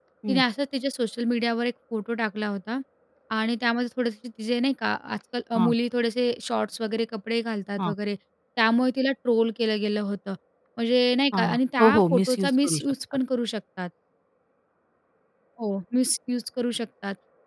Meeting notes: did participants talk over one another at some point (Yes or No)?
Yes